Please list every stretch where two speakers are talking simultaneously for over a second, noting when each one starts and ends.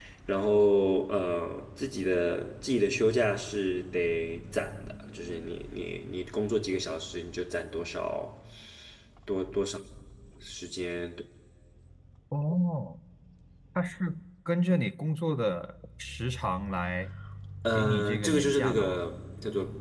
17.7-19.0

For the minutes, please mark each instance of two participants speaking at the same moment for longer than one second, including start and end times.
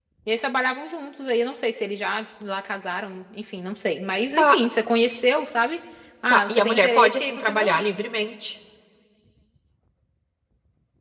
6.3-7.8

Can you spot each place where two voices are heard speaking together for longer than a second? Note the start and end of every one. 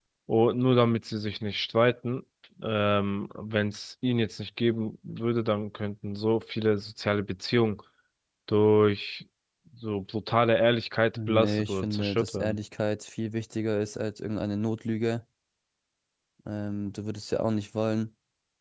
11.2-12.6

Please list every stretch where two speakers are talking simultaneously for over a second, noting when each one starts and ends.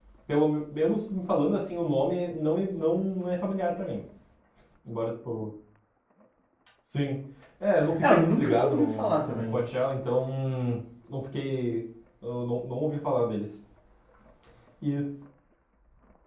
8.0-9.6

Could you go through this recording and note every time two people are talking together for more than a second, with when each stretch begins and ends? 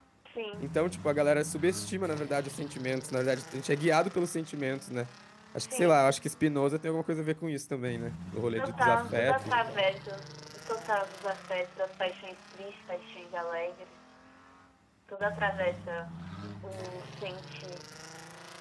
8.6-9.8

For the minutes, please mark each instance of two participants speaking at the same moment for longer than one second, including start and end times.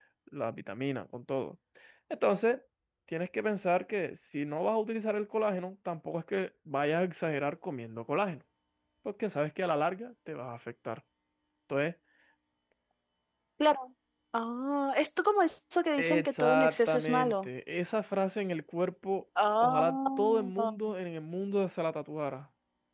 16.0-17.5, 19.6-20.9

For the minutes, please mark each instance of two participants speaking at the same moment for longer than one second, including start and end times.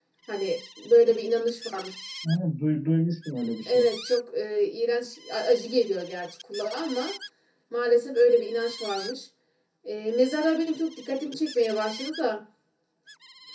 none

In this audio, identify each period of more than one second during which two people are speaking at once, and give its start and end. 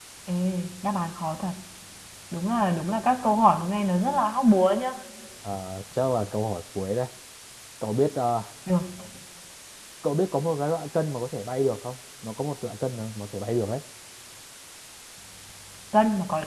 none

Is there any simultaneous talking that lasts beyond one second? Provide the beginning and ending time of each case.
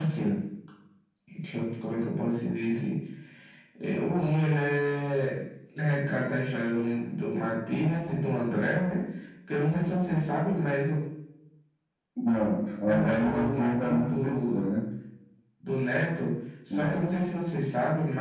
12.9-14.6

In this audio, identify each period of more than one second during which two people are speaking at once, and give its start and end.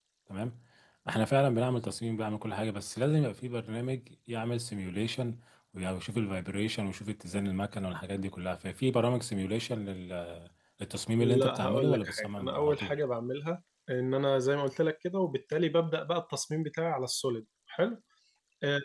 11.2-13.0

